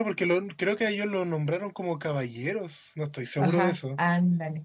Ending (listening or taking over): taking over